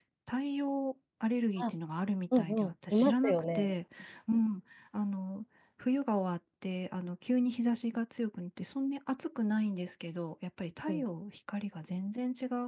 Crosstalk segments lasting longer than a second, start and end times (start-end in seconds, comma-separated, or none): 2.4-3.7